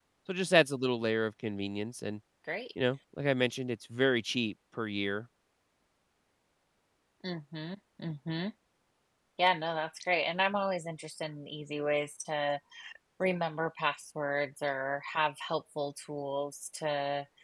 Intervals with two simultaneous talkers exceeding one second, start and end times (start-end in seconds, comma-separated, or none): none